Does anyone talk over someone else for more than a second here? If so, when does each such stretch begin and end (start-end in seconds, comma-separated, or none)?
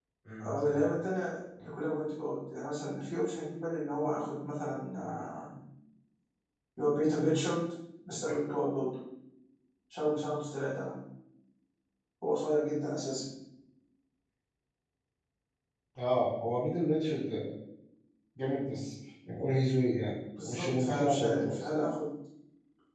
20.4-21.7